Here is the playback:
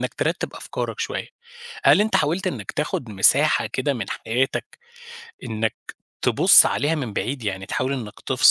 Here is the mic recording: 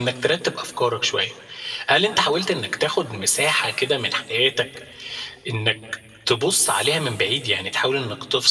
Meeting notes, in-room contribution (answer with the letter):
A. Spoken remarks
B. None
B